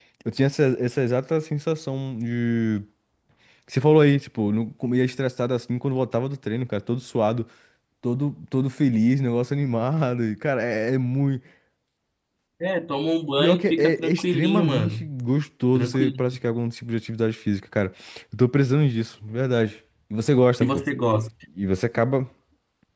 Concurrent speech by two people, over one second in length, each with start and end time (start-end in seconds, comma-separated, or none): 13.4-15.1